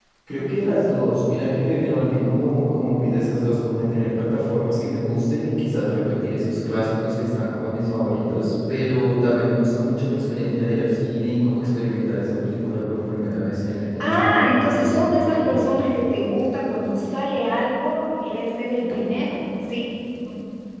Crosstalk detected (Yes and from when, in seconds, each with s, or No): Yes, from 14.0 s